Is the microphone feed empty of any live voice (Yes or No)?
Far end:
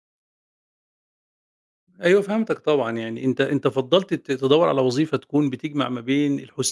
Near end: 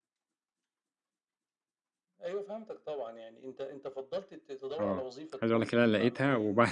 No